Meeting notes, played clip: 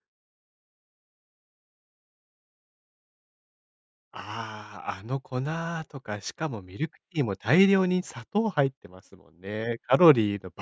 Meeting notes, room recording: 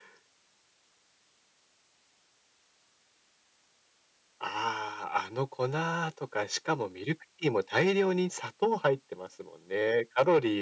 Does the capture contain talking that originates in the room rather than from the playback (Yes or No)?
No